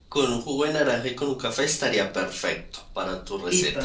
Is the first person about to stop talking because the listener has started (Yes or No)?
Yes